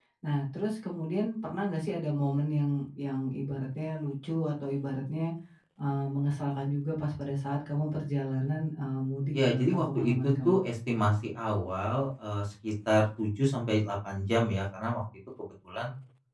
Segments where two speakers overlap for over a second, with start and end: 9.4-10.6

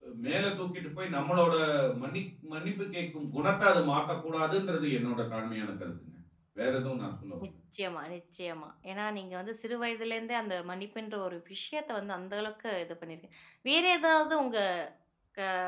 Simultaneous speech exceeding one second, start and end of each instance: none

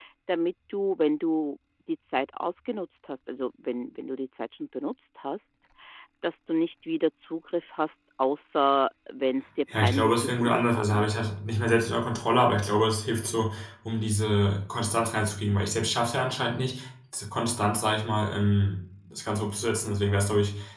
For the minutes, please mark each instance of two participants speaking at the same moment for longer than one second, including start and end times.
9.8-11.3

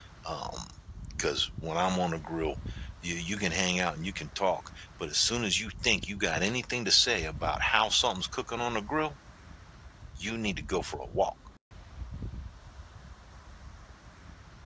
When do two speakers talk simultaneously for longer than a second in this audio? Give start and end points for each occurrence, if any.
none

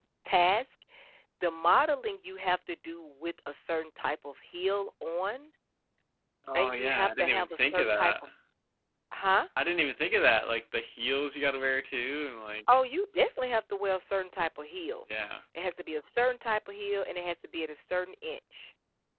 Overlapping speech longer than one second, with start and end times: 6.6-8.1

